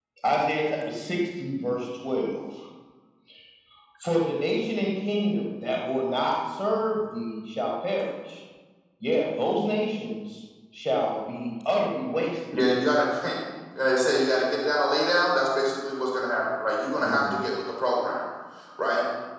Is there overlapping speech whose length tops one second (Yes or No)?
No